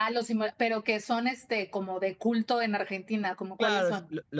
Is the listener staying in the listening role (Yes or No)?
No